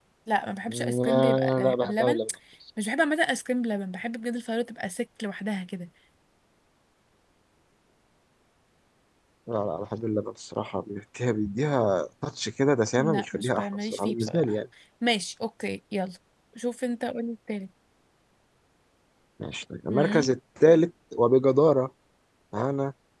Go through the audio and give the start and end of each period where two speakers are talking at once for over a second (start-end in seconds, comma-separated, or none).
0.7-2.2, 13.0-14.6